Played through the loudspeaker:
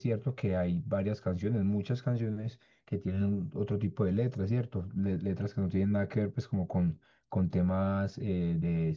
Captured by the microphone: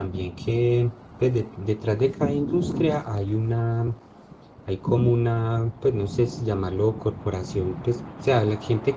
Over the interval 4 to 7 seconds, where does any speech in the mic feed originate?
user only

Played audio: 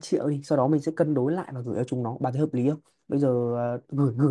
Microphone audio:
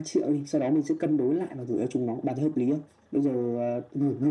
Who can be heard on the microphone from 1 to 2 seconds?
echo only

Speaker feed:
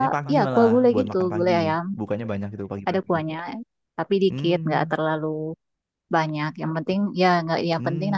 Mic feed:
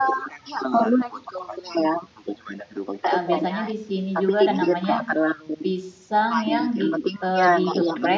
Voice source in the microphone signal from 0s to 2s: echo only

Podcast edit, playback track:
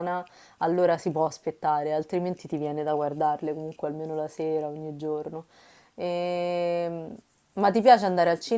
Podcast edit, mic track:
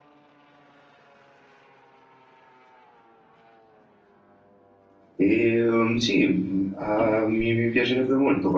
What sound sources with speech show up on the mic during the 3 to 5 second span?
neither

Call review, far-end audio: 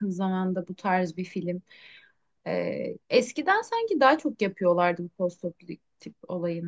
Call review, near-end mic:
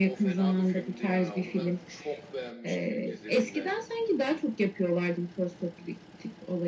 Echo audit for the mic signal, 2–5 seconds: both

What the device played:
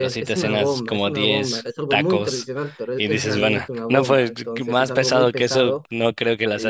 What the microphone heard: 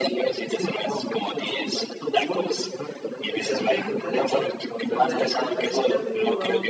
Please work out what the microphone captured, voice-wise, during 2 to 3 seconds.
echo only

